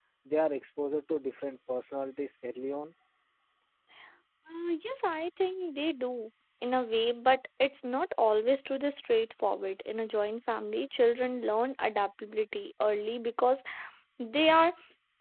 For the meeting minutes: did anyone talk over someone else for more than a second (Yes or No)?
No